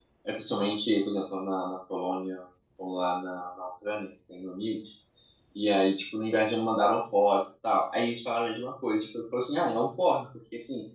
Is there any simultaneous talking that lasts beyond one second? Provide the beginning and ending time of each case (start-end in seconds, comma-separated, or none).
none